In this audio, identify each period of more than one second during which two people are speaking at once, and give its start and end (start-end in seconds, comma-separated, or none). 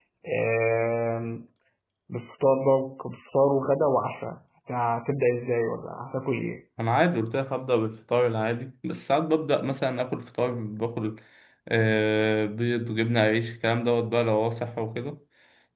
none